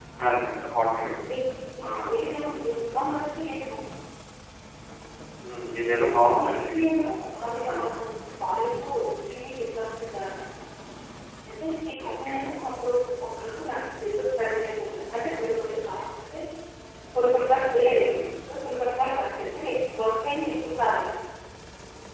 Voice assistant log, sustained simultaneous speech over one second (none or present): none